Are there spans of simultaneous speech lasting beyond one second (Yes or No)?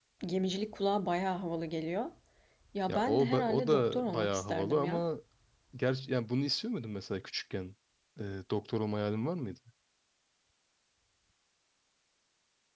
Yes